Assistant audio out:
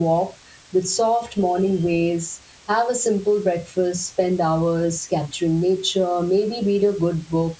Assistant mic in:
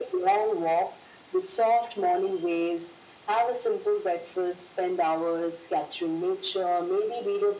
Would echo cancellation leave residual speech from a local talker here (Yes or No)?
No